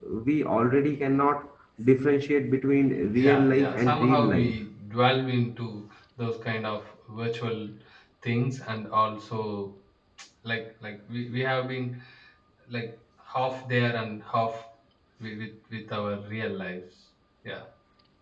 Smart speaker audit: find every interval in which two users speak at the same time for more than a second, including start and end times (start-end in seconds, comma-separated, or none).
3.1-4.6